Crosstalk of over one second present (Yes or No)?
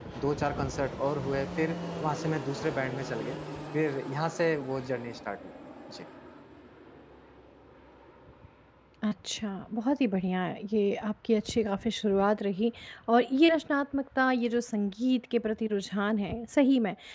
No